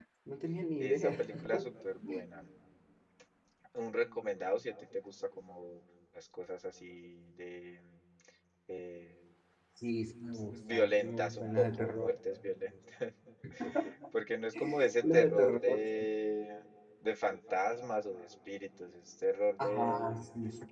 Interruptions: present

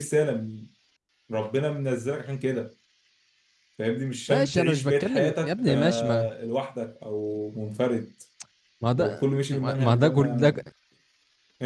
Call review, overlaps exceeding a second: present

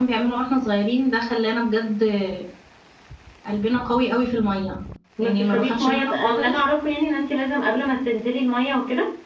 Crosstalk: present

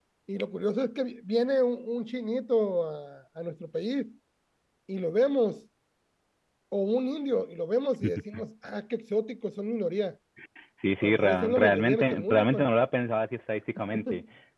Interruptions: present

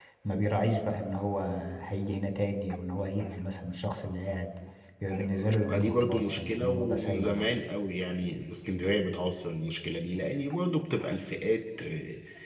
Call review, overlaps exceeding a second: present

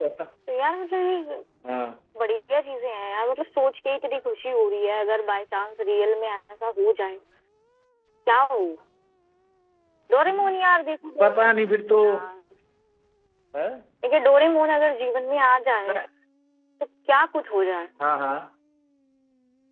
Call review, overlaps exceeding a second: none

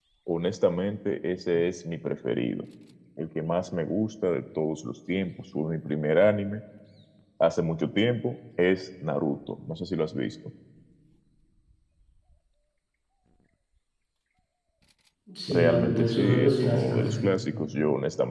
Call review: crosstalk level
present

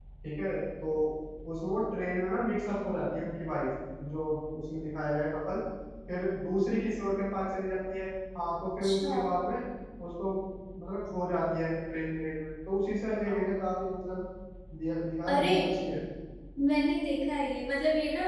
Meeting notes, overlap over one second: none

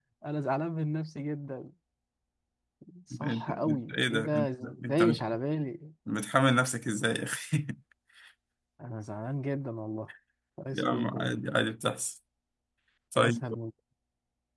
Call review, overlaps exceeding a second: present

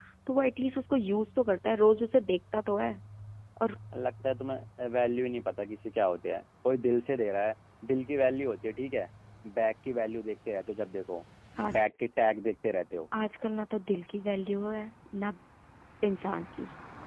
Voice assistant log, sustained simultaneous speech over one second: none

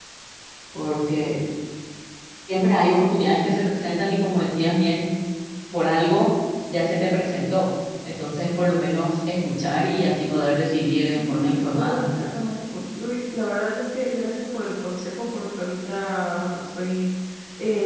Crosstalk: present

